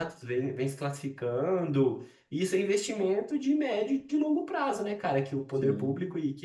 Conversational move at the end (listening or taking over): listening